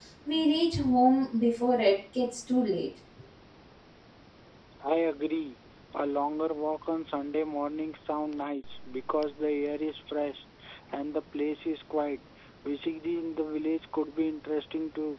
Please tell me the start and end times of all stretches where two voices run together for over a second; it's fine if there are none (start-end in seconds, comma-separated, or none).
none